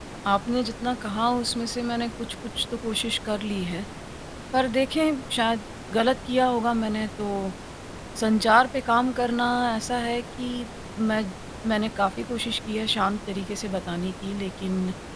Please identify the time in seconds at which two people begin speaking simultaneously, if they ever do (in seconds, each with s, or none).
none